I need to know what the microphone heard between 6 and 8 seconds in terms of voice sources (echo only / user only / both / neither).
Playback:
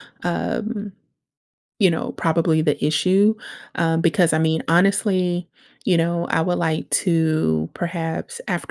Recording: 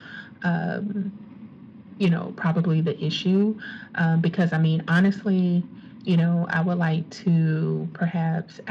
echo only